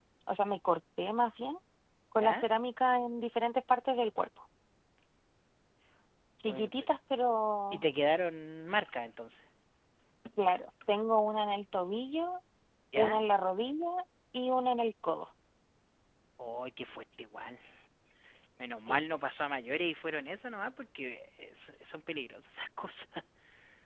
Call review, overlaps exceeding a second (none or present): none